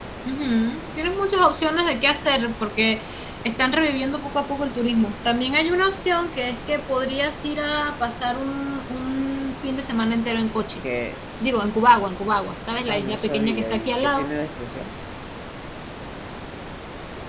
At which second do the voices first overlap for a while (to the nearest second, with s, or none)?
13 s